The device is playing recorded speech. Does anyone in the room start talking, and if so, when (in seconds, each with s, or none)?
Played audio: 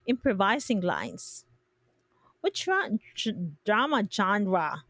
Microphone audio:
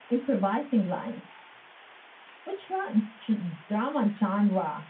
none